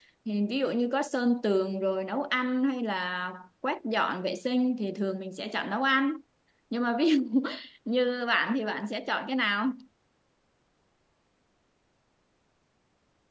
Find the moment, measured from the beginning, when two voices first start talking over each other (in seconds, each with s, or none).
none